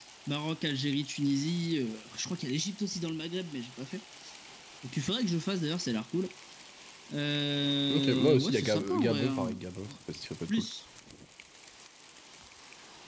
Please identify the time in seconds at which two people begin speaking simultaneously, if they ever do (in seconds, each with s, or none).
7.9 s